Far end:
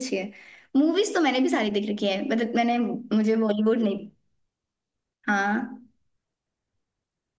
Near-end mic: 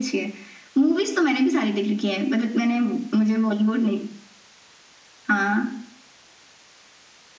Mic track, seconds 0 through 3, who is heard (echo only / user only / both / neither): echo only